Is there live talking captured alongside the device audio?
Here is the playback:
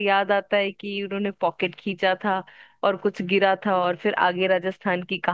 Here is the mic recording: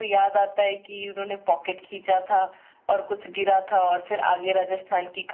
No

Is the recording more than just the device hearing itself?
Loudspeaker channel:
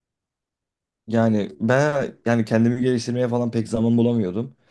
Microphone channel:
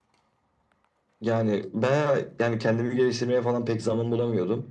No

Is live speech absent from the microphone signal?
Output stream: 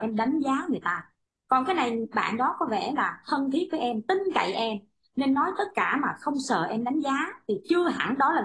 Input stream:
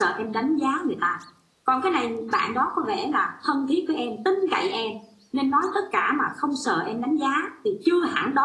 Yes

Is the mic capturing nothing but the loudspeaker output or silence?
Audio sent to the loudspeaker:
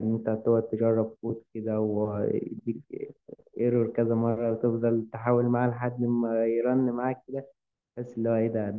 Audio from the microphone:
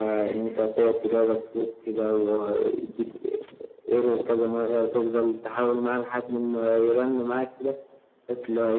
Yes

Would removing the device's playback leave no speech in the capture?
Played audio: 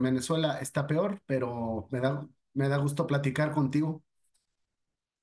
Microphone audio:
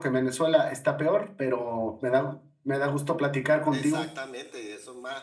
No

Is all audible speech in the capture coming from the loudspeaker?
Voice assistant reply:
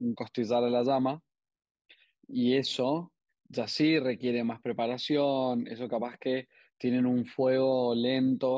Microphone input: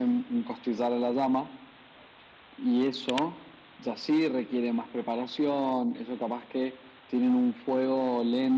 Yes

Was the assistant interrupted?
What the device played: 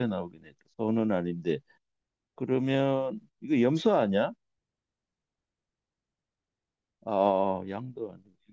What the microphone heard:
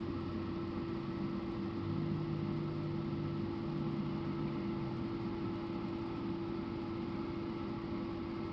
No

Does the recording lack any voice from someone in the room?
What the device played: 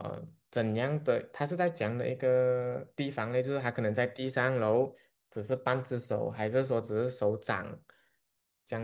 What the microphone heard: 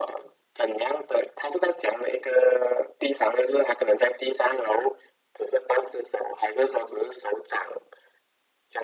Yes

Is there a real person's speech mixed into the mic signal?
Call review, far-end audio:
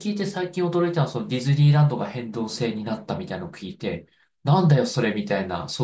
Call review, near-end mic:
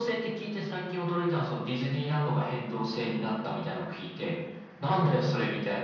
No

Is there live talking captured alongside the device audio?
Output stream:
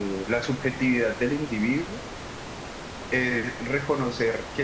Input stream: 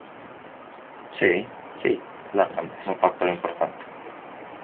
Yes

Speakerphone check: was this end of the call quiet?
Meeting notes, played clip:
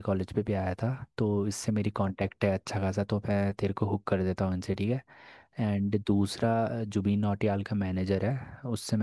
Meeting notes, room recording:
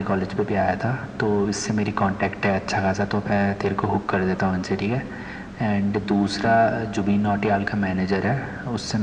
Yes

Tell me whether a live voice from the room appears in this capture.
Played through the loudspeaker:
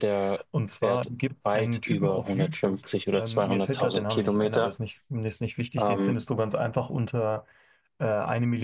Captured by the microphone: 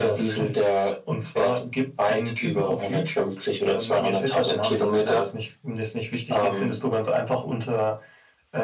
No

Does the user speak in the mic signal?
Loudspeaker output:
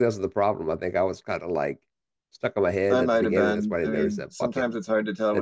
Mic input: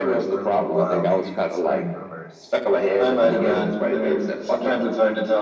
Yes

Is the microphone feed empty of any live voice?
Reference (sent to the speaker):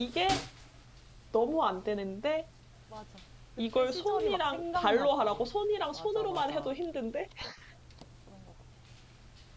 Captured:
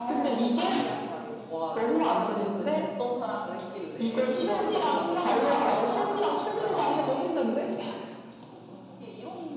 No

